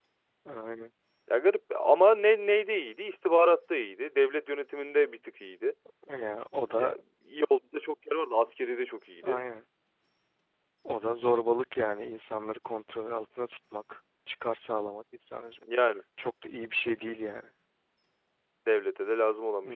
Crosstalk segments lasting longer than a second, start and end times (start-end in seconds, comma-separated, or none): none